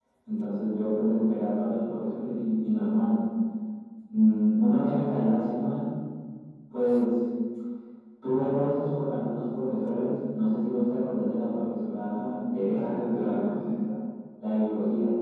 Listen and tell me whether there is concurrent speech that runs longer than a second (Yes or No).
Yes